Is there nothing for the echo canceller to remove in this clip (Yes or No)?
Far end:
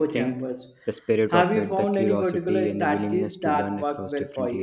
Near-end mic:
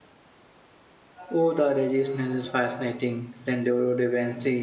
Yes